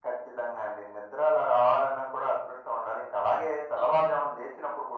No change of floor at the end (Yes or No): Yes